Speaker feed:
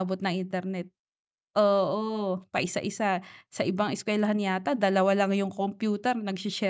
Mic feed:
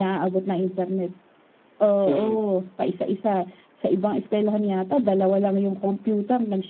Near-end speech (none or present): present